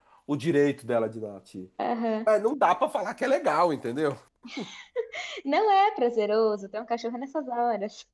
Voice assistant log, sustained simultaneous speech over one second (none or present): none